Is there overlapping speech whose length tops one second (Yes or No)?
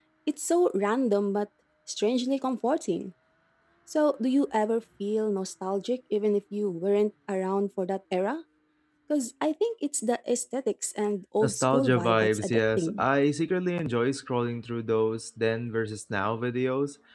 Yes